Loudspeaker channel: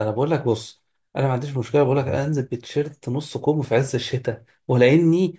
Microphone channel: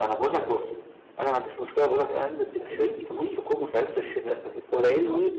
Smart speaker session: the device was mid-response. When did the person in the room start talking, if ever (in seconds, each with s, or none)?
2.5 s